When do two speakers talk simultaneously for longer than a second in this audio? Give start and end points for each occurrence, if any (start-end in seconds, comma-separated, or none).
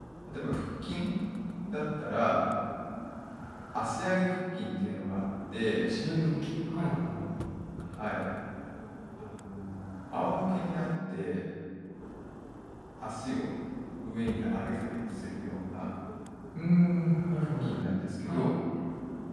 none